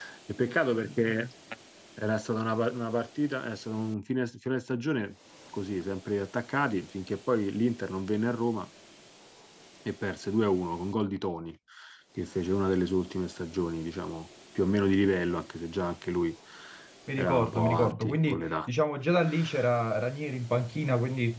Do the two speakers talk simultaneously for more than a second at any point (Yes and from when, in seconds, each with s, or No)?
Yes, from 17.2 s